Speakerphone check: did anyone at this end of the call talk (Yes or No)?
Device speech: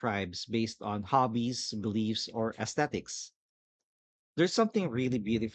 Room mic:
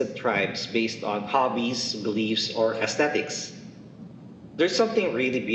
No